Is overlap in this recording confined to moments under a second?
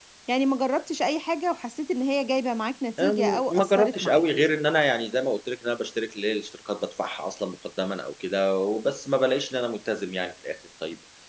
No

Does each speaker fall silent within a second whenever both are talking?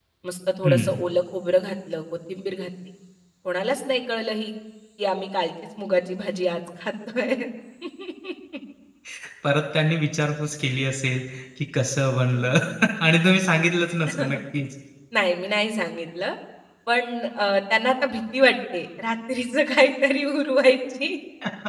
Yes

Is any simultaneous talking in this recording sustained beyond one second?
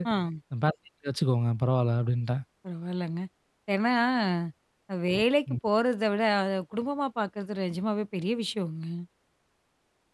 No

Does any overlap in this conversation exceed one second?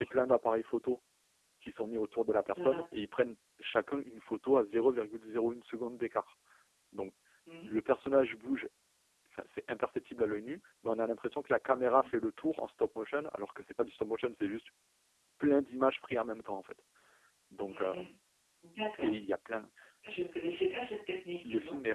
No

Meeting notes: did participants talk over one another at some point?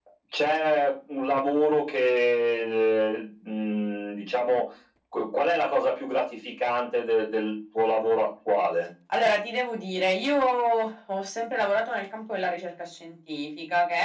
No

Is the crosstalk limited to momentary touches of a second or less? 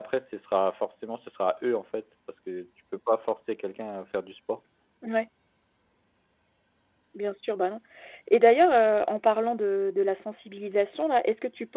Yes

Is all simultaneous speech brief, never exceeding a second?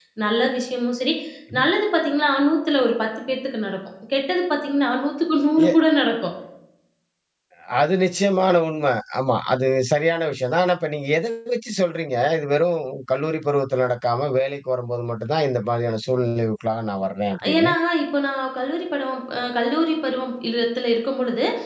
Yes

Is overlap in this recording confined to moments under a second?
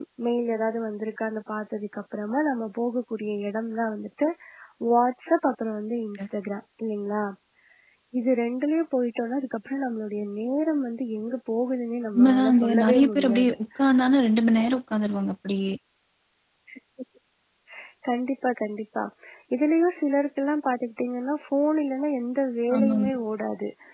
No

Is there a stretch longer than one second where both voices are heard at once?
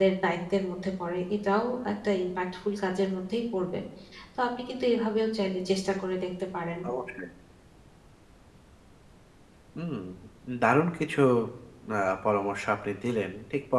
No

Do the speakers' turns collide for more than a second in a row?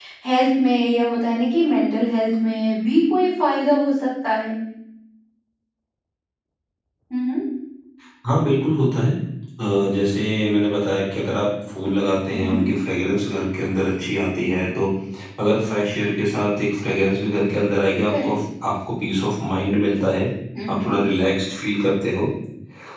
No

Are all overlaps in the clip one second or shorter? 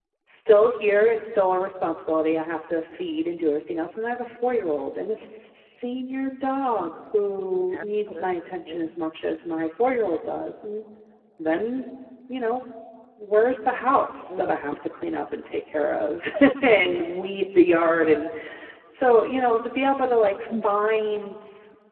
No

